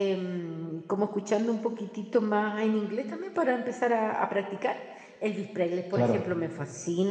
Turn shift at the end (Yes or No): No